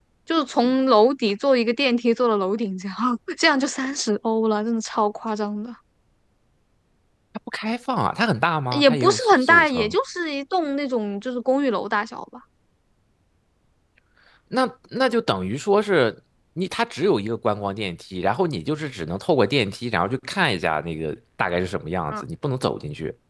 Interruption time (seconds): 8.7 s

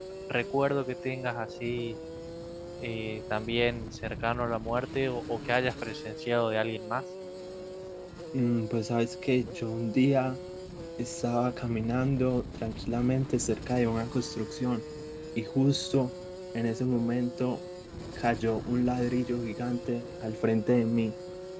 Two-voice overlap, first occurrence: none

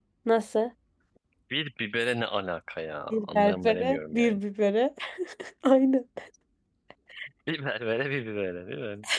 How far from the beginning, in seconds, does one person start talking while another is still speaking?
3.1 s

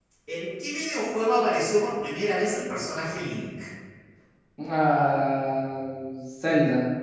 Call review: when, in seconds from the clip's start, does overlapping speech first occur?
none

